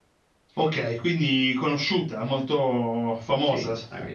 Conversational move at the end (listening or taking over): taking over